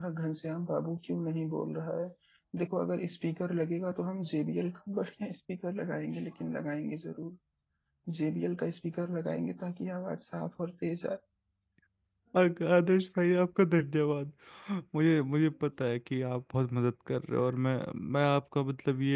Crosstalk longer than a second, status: none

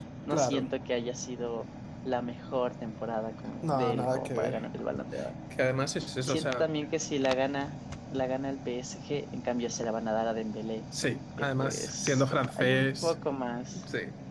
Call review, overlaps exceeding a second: present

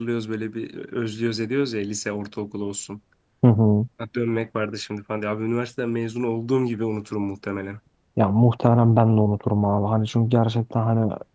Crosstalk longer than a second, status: none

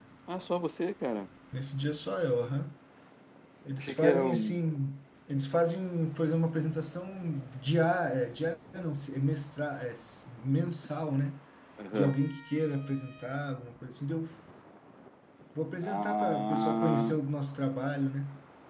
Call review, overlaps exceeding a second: present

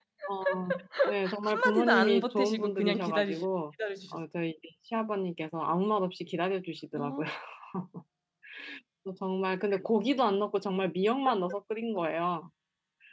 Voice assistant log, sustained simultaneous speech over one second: present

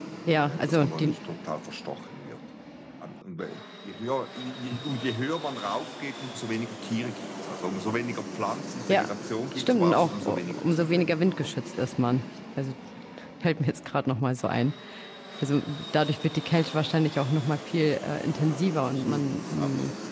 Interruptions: present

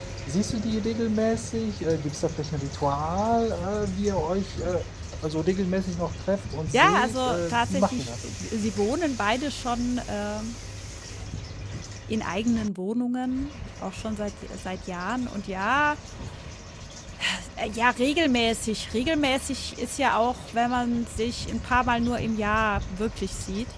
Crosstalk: present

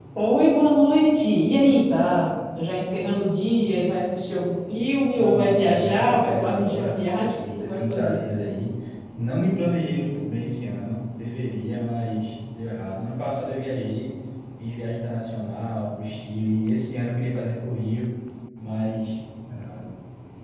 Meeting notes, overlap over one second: present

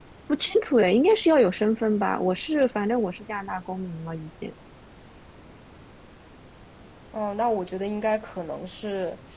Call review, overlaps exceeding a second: none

